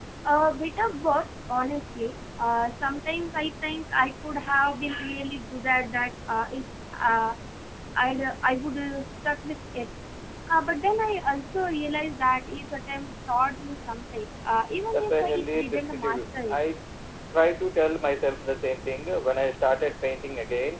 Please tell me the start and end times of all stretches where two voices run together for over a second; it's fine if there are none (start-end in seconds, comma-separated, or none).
14.9-16.6